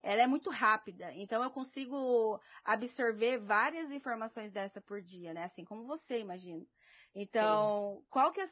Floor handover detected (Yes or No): No